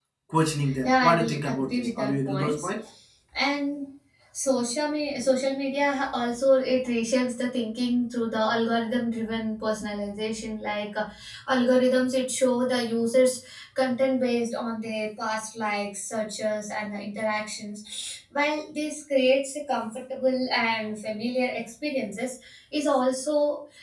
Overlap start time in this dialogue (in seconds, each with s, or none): 0.8 s